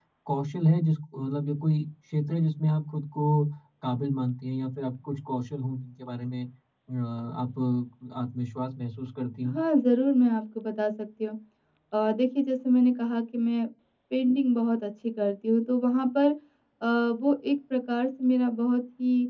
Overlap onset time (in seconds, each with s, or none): none